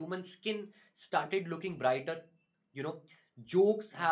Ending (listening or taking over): listening